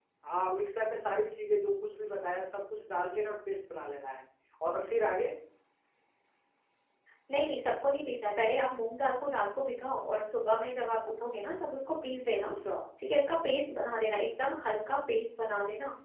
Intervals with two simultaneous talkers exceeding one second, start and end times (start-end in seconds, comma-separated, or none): none